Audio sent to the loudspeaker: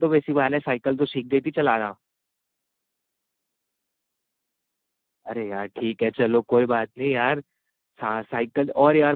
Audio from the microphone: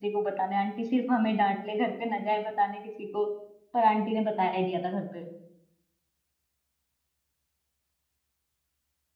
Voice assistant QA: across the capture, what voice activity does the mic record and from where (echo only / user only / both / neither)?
user only